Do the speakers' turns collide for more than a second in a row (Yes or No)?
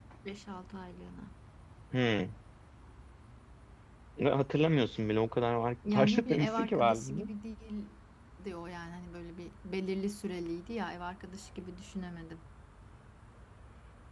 Yes